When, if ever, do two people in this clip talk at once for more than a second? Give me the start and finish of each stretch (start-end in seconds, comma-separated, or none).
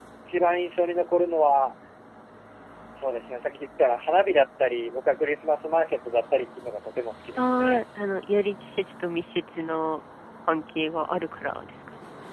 none